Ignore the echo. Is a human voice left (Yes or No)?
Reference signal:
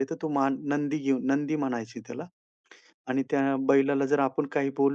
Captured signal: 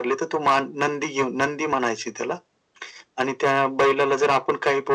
No